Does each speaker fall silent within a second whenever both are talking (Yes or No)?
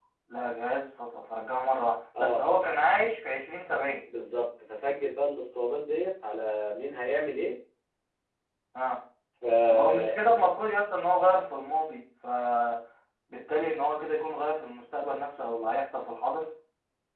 Yes